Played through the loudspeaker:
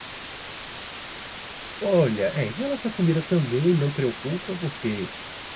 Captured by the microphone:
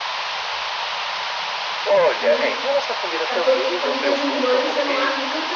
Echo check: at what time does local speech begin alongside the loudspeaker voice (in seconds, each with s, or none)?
2.2 s